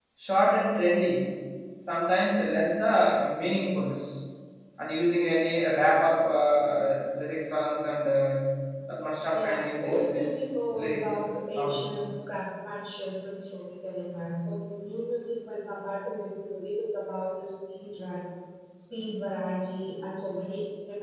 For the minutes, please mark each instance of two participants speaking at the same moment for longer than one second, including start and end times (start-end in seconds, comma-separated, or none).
9.3-12.0